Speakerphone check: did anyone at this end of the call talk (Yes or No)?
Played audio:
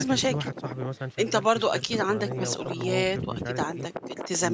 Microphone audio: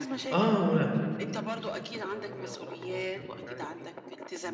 Yes